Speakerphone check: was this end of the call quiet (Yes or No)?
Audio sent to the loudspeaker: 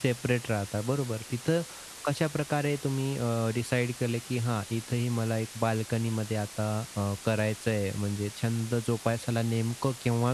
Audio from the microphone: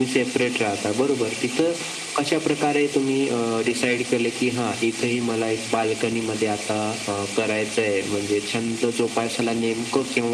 Yes